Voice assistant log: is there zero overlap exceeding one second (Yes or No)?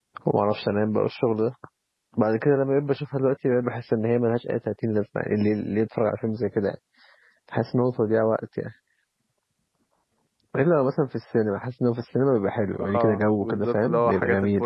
No